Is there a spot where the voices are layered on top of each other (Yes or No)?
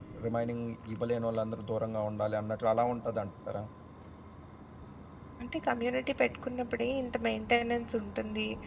No